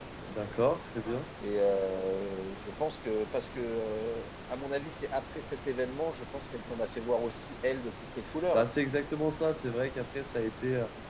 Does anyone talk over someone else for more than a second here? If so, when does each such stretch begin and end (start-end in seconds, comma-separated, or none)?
none